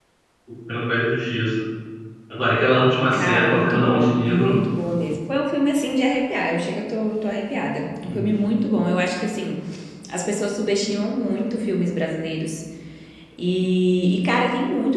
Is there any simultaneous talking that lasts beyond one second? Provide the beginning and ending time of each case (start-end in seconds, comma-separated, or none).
3.1-4.6